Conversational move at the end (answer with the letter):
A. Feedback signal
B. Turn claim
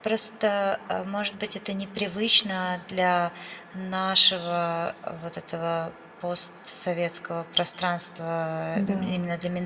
A